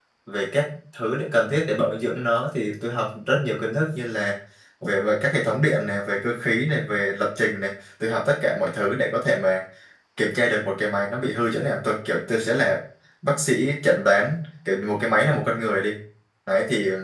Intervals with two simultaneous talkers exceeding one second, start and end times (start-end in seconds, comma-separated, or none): none